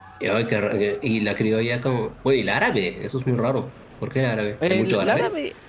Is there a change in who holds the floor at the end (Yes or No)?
Yes